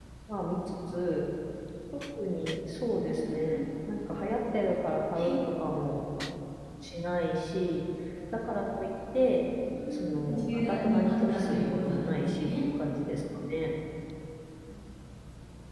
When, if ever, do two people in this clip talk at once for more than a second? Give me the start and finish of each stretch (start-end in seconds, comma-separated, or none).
10.3-12.5